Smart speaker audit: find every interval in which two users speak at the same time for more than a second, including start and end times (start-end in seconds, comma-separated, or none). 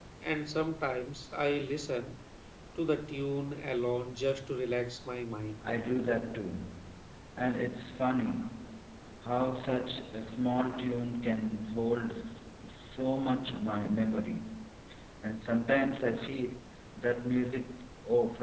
none